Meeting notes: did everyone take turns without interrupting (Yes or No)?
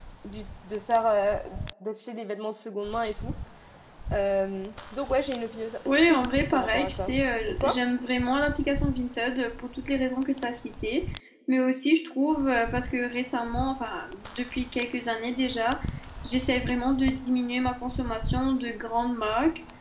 No